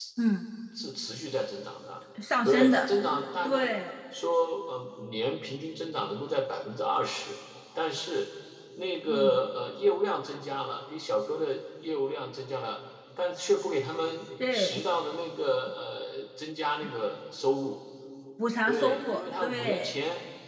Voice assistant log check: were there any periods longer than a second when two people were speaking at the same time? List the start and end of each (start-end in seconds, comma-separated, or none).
18.6-19.9